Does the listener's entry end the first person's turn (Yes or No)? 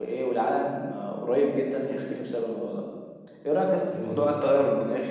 No